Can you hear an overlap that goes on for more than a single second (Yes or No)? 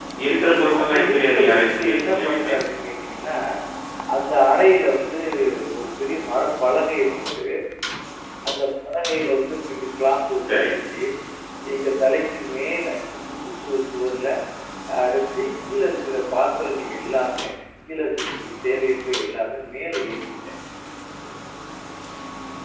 Yes